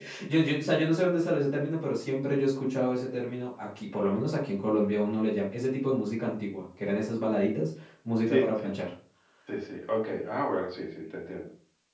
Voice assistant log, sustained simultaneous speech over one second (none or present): none